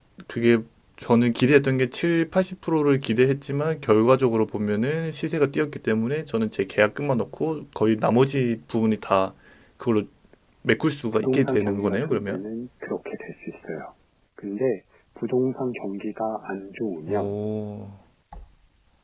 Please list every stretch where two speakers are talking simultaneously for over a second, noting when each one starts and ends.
11.1-12.4

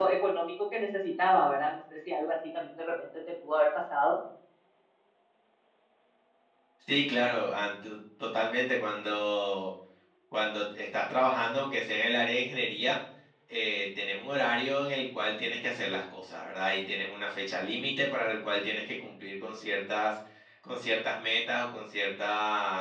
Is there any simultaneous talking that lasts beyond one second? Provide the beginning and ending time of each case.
none

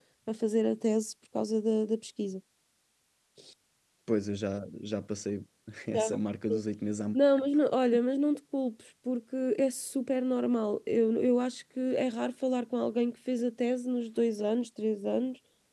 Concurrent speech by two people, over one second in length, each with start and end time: none

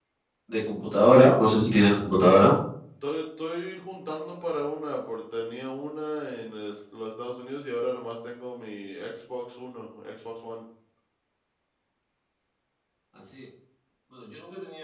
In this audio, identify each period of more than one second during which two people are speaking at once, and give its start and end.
none

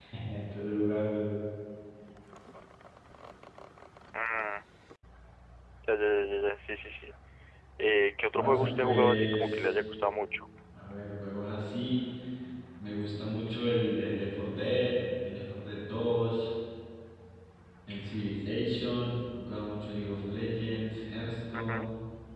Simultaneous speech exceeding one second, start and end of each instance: 8.4-9.7

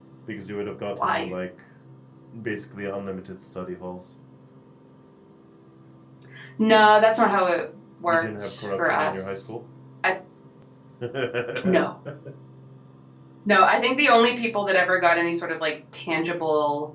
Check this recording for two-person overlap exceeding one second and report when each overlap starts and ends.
8.1-9.5

